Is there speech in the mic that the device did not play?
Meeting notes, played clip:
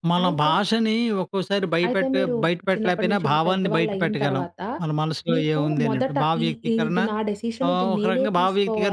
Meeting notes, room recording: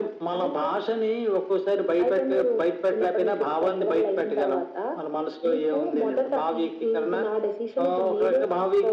No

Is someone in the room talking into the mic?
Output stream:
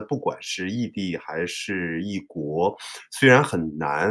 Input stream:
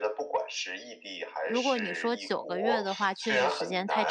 Yes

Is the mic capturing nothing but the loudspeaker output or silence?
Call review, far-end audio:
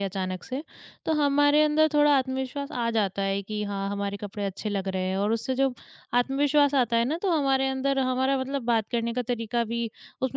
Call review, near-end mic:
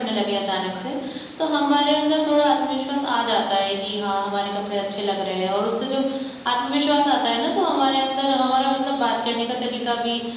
Yes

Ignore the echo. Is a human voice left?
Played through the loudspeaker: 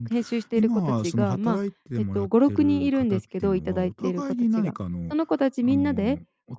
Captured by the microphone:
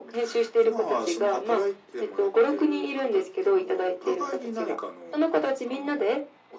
No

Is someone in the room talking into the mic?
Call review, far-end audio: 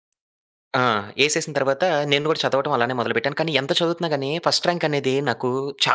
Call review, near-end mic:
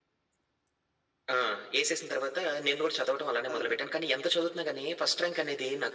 Yes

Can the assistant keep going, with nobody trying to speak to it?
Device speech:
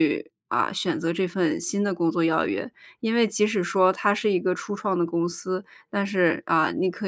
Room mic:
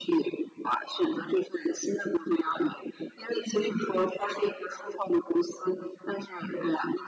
Yes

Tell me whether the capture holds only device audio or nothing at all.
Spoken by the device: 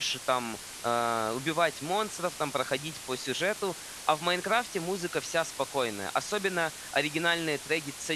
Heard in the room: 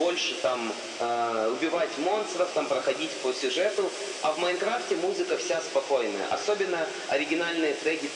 Yes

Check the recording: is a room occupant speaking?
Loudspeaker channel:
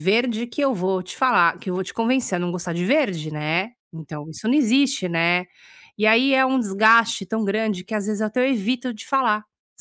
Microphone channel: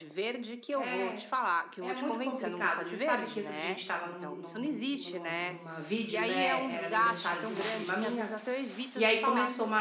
Yes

